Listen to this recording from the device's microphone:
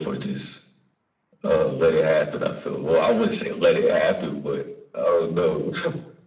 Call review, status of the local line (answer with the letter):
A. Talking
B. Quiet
B